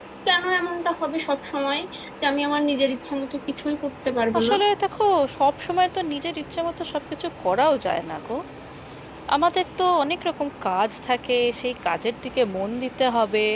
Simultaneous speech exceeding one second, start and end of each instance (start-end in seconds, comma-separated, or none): none